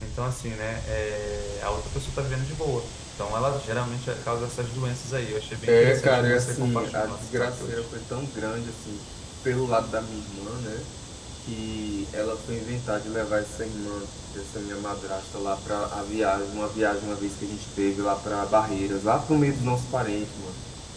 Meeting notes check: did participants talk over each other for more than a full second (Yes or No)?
Yes